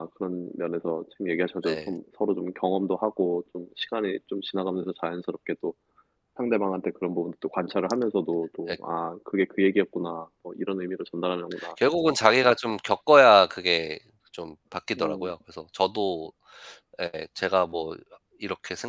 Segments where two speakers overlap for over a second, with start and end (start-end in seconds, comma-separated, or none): none